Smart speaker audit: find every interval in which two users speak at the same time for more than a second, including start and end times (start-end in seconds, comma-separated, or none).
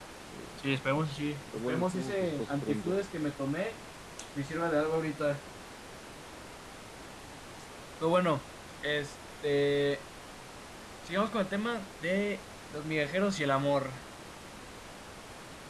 1.6-3.0